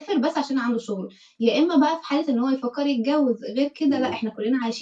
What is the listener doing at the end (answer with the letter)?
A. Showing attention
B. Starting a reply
A